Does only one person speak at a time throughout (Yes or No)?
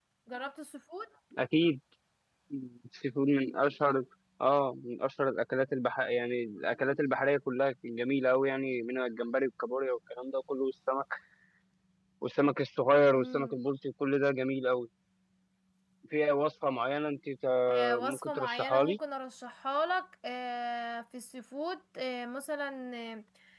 No